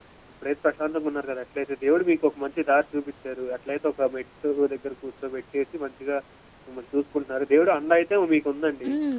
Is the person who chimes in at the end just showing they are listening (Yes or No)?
No